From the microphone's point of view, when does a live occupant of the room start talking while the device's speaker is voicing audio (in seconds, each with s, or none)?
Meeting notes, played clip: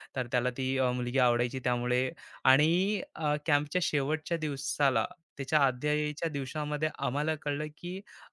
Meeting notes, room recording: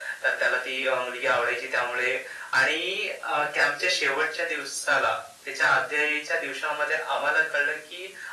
none